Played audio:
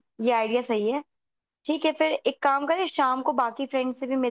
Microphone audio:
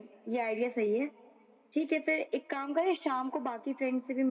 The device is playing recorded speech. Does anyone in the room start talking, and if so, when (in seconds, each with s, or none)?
none